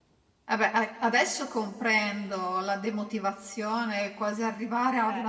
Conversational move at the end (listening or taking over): listening